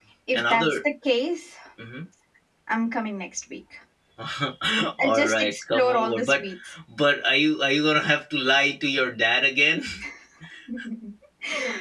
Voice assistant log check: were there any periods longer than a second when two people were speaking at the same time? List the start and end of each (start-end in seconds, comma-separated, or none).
5.0-6.5